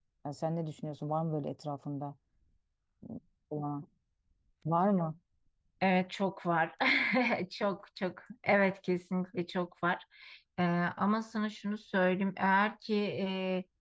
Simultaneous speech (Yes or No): No